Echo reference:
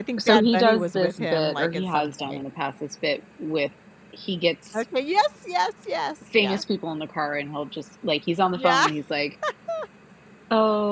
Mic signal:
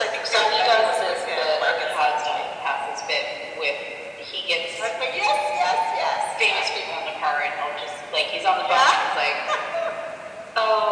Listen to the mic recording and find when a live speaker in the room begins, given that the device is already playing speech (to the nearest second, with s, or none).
none